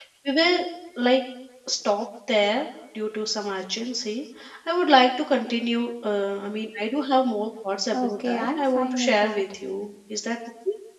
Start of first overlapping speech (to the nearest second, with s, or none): 8 s